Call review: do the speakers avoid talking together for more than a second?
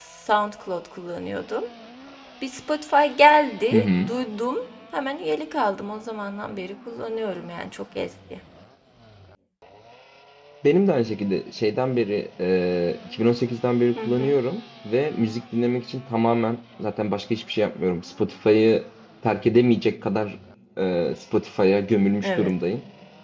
Yes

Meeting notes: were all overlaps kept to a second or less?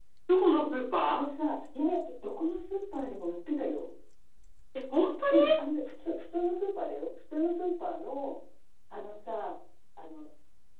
Yes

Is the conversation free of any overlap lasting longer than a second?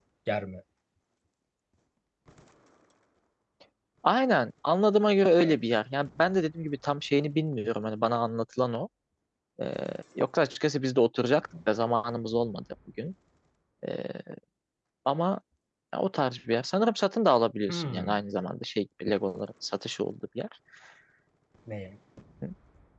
Yes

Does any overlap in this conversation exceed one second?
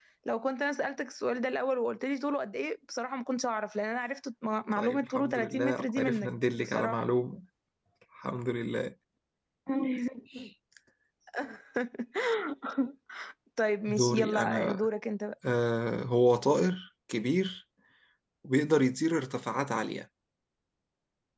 Yes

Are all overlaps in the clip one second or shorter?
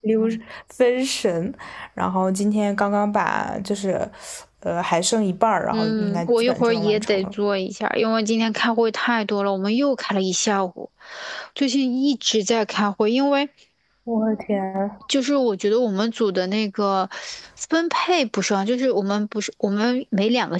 No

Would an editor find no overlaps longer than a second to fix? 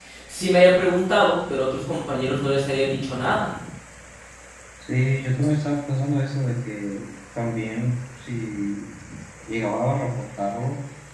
Yes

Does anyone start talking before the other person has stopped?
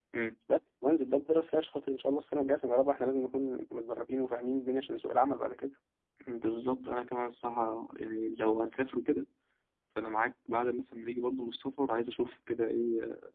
No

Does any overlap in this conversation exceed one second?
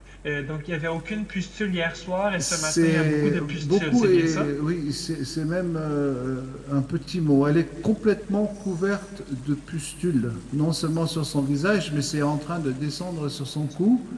Yes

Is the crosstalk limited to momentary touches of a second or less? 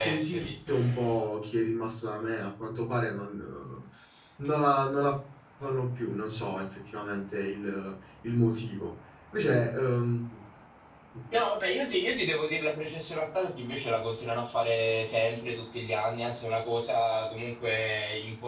Yes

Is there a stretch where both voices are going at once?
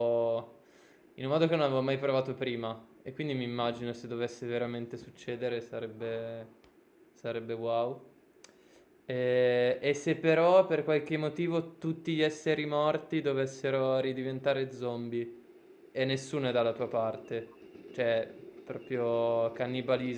No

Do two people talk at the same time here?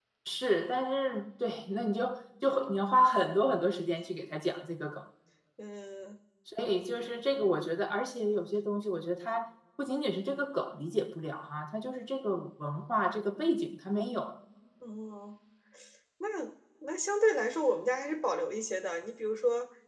No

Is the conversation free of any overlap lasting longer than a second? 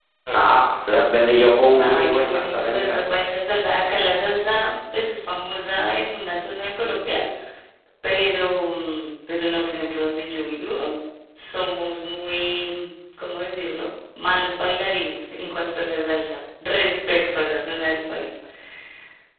No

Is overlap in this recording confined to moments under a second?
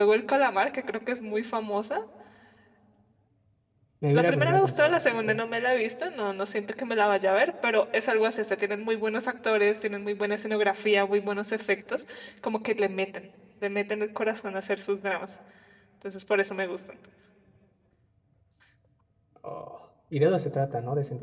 No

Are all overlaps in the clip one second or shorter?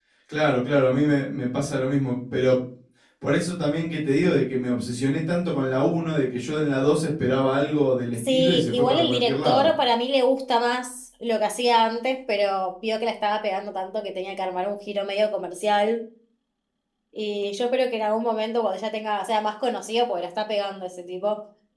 No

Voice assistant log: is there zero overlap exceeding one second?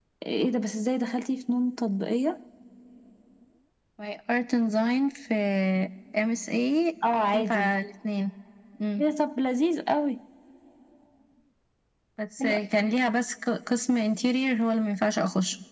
Yes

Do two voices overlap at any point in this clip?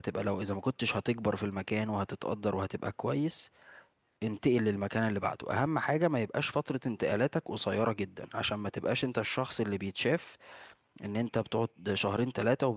No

